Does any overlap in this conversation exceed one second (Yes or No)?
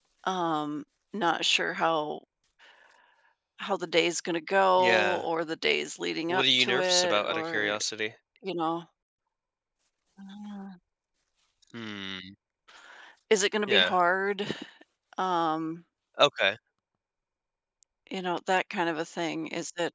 Yes